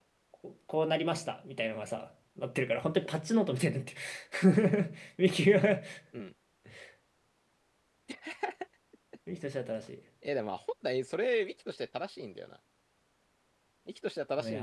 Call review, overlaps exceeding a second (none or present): none